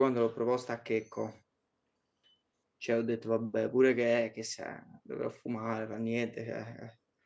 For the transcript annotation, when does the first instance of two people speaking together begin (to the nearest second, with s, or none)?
none